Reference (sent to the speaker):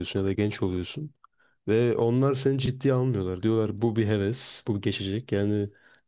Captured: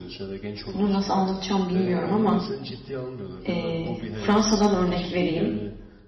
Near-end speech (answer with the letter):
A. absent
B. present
B